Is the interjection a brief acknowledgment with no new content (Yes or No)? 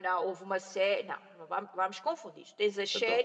Yes